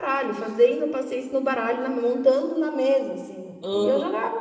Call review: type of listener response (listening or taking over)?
taking over